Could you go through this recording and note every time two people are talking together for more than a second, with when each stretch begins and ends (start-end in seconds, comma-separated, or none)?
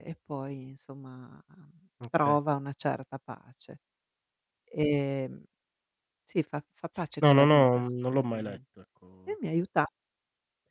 7.3-8.6